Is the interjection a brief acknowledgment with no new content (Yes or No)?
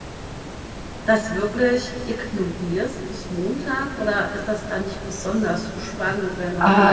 No